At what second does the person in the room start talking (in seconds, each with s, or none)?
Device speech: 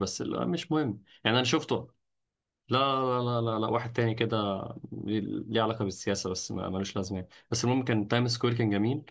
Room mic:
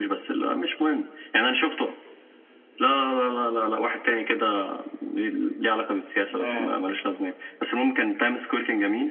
6.4 s